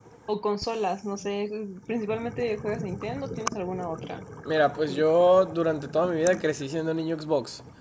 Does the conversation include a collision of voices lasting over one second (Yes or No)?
No